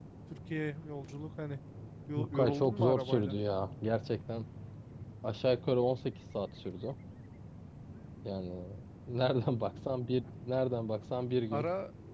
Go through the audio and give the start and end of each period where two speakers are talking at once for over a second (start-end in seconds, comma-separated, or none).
2.2-3.4